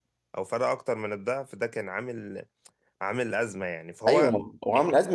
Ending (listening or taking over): taking over